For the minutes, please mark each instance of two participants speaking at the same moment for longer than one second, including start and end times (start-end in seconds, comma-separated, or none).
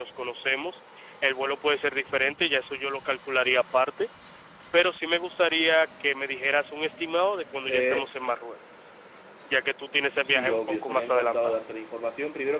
10.1-11.6